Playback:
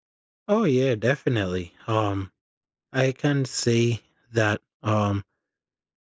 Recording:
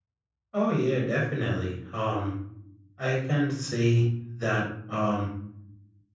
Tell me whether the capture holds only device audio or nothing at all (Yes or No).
Yes